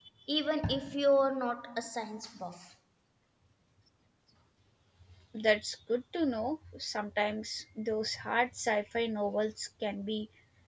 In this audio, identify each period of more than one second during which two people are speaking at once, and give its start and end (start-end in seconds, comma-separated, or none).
none